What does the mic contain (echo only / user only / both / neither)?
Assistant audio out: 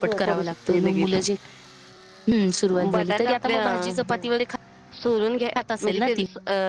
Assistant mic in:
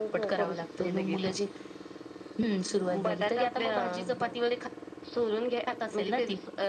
echo only